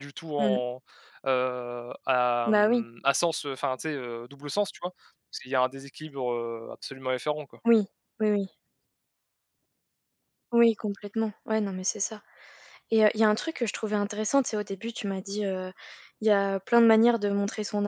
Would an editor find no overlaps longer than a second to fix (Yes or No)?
Yes